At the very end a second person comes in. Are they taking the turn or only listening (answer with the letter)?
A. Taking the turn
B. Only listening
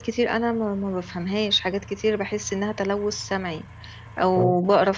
B